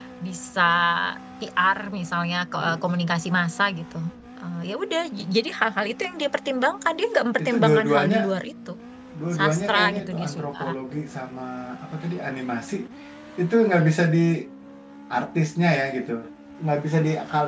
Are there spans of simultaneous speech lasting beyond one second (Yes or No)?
Yes